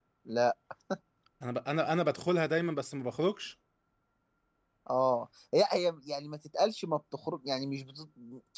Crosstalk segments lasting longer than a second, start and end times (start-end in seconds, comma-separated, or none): none